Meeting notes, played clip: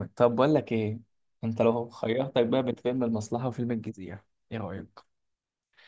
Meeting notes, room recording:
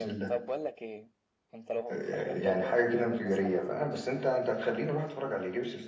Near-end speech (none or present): present